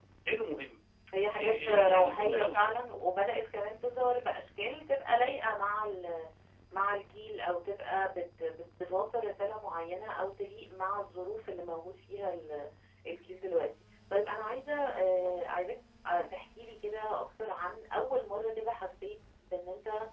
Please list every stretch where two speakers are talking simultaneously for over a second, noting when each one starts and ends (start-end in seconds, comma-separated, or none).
1.4-2.6